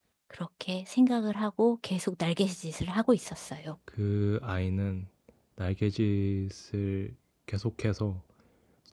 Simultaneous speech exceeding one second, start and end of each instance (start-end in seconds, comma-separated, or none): none